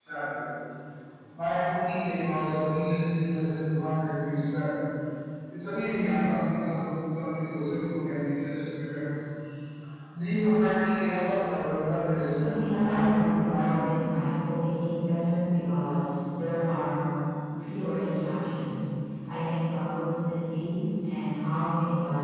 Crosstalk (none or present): present